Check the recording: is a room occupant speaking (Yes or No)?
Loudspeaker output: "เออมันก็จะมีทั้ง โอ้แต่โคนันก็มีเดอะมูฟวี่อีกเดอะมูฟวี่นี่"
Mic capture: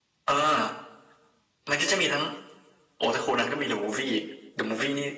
No